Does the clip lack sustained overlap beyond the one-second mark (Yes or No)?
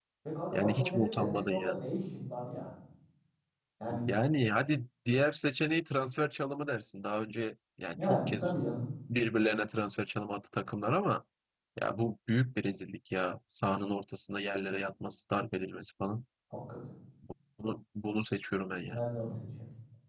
No